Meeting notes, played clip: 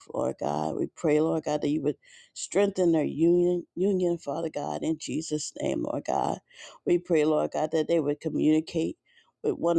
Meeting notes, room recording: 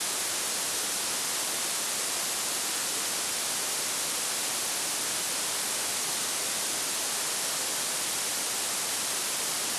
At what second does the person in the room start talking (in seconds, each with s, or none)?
none